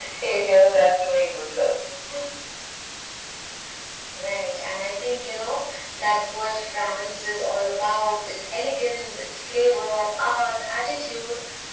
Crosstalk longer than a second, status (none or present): none